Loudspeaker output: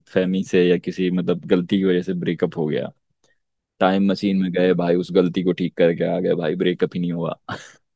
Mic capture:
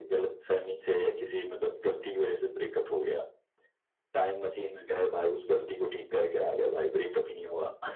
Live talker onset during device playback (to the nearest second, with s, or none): none